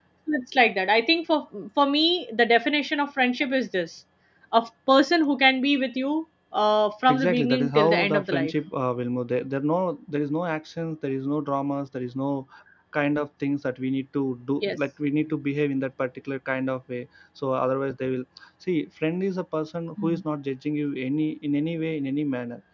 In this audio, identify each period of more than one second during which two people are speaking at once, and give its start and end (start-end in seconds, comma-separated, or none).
7.1-8.5